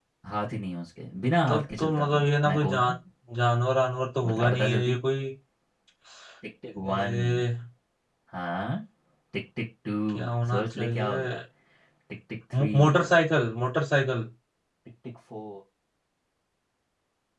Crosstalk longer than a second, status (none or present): present